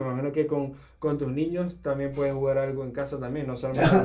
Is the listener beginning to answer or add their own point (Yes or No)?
Yes